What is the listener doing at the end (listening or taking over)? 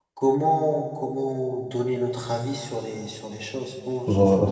taking over